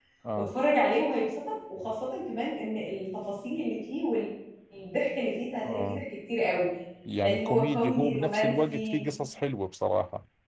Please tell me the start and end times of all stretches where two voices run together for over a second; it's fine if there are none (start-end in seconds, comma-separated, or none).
7.2-9.0